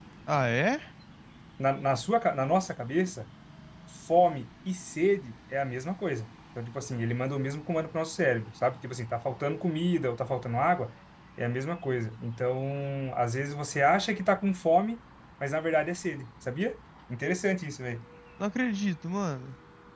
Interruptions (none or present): none